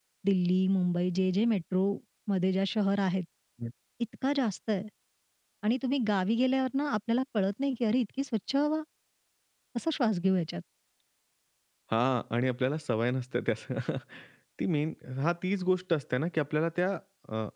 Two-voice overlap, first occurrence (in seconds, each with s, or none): none